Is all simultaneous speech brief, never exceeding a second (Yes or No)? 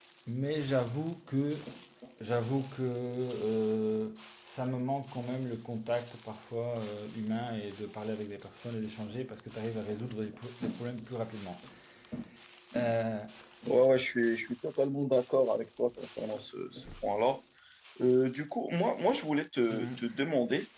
Yes